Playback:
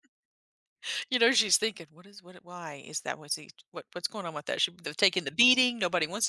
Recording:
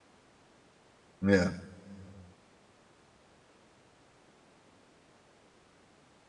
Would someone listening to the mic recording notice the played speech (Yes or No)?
No